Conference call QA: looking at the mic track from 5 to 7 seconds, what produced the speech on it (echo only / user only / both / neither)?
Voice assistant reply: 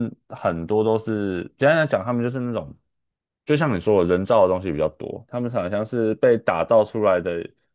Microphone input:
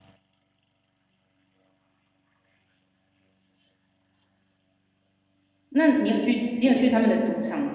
user only